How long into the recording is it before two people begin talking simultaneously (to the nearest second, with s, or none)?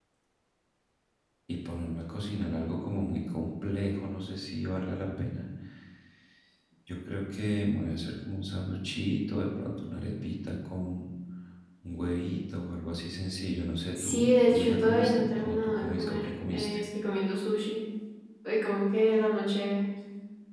14 s